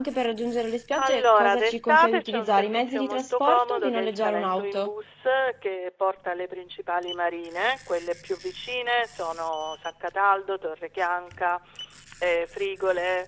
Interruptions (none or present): present